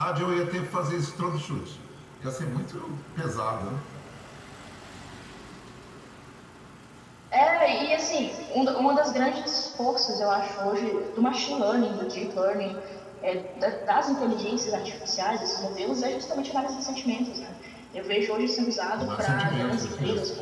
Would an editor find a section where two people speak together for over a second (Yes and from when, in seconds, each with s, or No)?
Yes, from 19.0 s